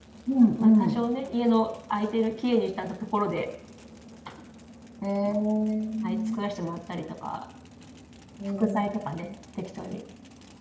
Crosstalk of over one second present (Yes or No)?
No